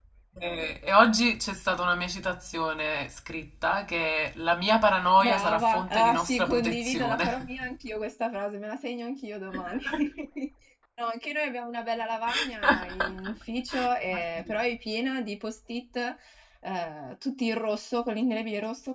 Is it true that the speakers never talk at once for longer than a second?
No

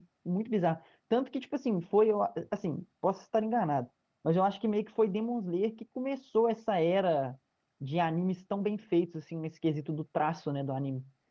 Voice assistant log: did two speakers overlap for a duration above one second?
No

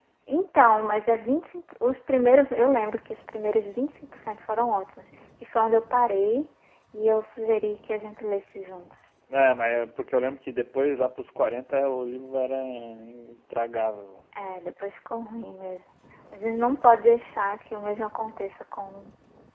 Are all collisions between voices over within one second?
Yes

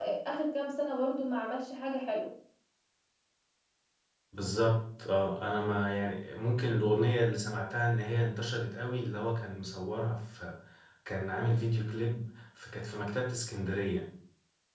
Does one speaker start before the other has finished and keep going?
No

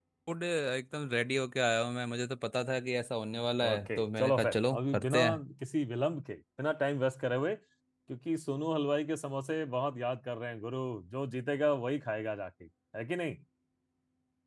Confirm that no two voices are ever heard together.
No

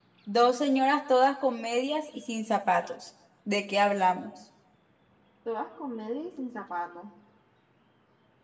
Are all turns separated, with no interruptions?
Yes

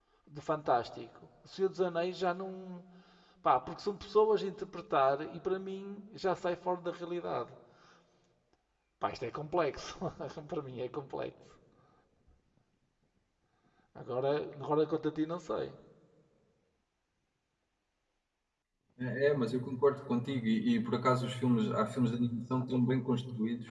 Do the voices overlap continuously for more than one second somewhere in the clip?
No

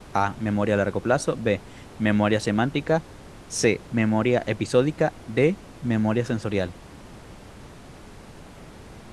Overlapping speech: No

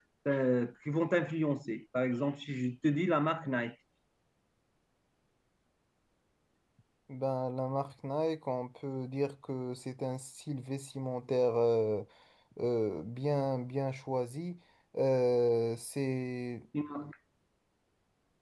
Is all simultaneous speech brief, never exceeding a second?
Yes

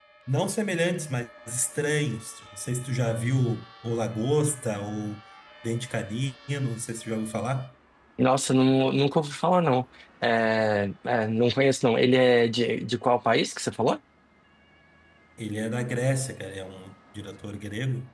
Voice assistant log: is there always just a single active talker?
Yes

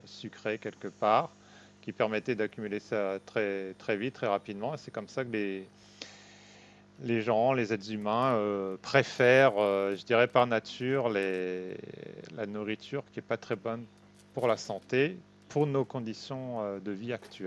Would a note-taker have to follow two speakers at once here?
No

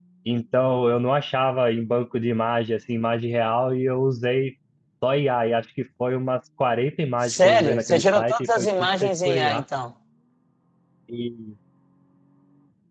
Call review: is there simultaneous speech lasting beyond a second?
Yes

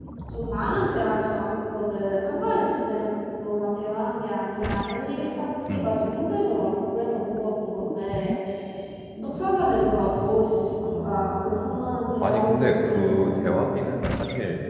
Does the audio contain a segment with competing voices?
Yes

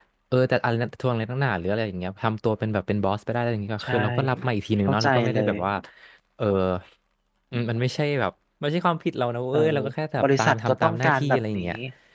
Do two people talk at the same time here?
Yes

